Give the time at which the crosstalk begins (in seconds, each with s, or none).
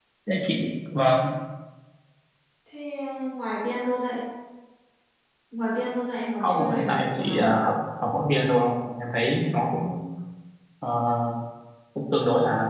6.4 s